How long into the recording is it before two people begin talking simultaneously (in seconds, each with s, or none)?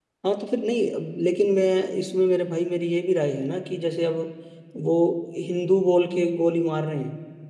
none